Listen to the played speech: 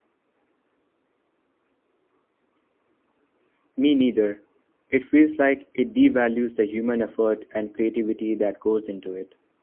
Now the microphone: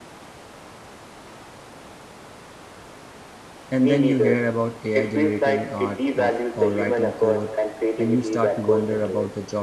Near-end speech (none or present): present